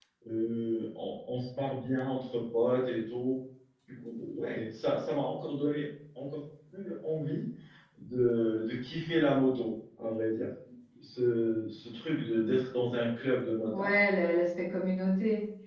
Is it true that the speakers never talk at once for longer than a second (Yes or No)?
Yes